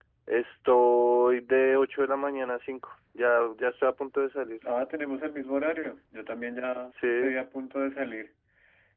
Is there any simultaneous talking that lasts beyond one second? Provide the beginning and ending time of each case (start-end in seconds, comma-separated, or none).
none